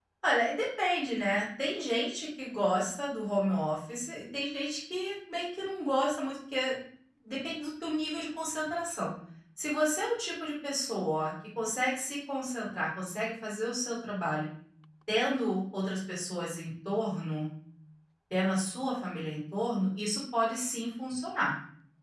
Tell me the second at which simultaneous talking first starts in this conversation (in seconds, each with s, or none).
none